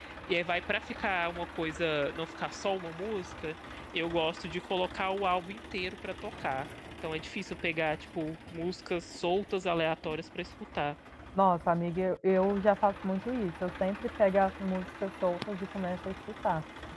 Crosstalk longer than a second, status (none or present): none